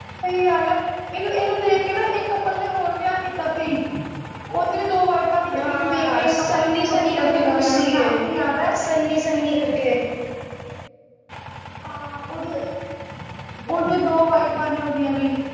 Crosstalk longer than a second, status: present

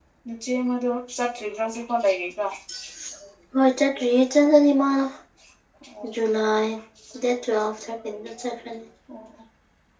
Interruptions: none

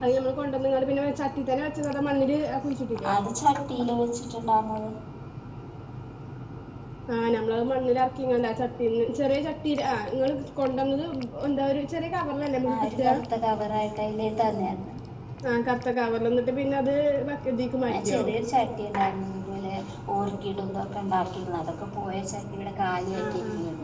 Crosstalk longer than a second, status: none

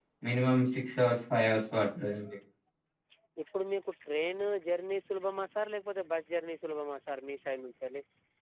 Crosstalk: none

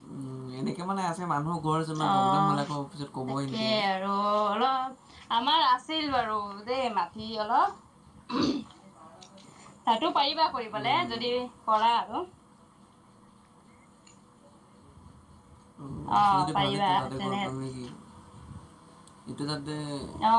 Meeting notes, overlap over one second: present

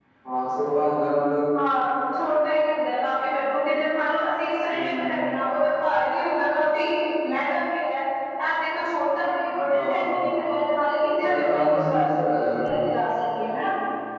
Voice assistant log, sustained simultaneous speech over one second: present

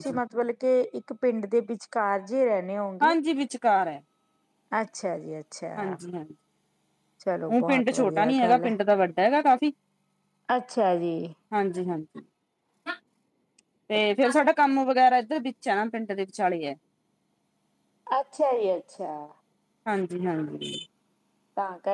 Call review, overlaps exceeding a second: present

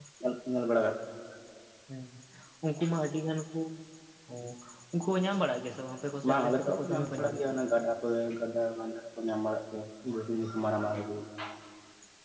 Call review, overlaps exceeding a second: present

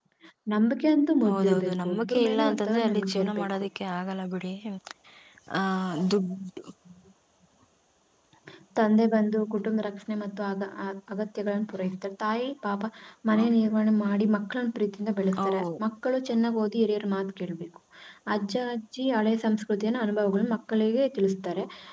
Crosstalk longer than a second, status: present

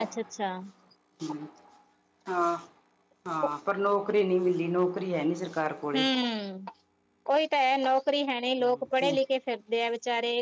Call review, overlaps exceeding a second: none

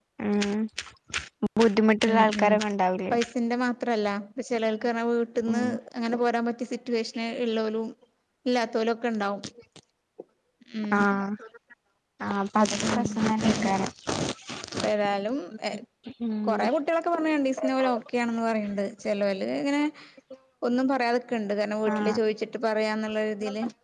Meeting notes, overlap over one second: none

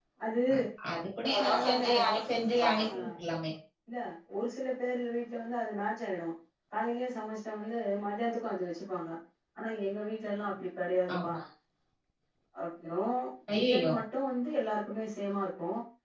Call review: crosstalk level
present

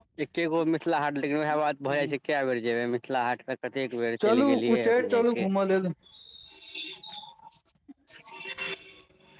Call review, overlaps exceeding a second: present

